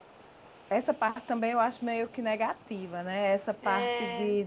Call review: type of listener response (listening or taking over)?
listening